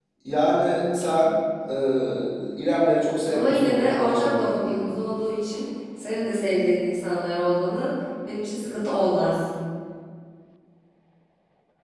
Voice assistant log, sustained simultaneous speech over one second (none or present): present